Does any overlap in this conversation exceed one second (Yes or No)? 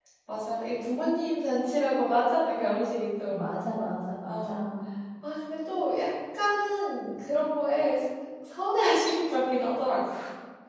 No